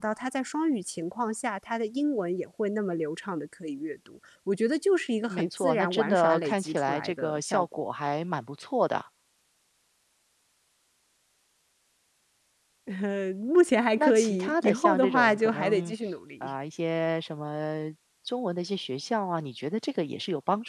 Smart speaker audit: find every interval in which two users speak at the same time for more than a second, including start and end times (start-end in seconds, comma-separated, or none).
5.3-7.6, 14.0-15.9